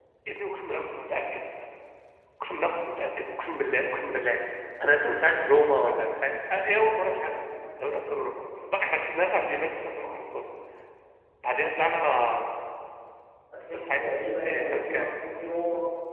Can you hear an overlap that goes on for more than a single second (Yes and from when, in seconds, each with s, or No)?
Yes, from 13.7 s